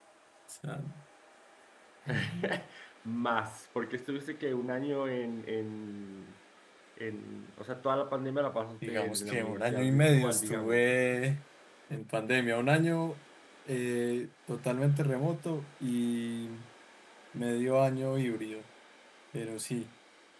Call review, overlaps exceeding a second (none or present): present